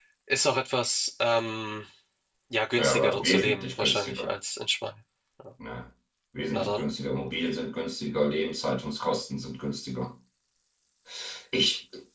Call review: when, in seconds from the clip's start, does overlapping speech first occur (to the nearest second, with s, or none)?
3 s